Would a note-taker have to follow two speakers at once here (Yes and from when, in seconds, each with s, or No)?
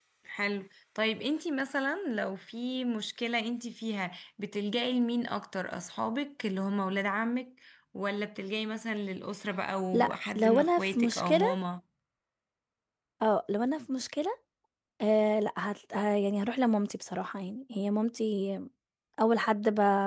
Yes, from 9.9 s